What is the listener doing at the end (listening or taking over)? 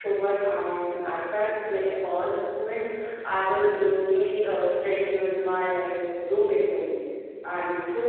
listening